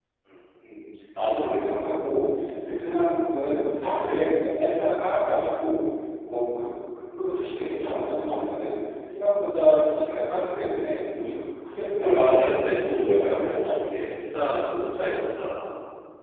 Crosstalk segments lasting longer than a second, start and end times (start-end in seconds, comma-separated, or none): 12.0-13.7